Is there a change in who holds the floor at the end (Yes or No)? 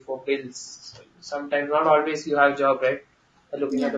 No